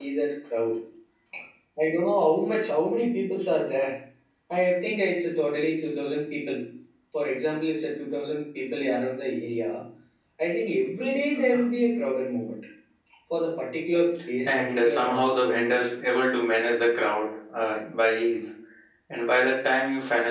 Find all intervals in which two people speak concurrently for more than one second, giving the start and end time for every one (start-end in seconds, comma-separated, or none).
14.4-15.8